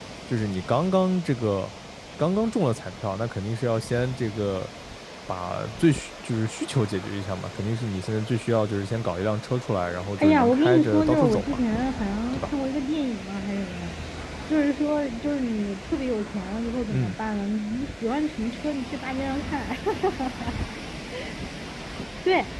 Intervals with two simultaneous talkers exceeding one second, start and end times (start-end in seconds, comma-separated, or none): 10.2-11.6